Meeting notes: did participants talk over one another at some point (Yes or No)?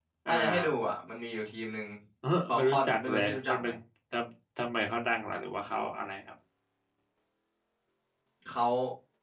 Yes